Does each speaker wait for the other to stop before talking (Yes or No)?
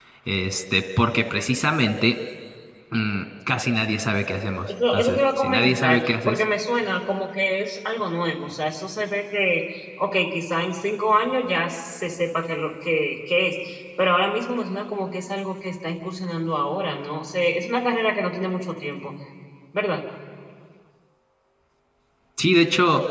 No